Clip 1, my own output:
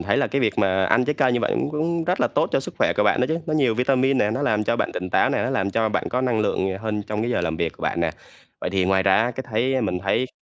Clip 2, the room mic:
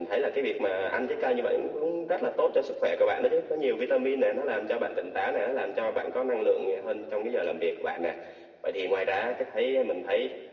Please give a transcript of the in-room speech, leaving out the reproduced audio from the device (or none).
none